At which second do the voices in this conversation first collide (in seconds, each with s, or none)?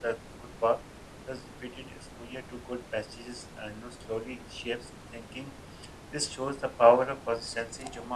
none